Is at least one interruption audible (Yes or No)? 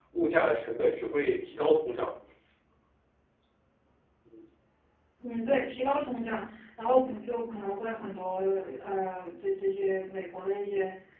No